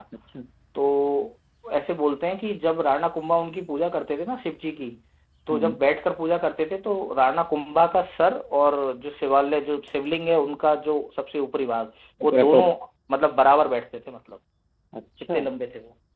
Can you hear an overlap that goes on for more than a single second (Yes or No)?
No